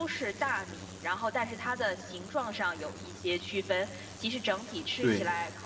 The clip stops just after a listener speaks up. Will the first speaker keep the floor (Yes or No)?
Yes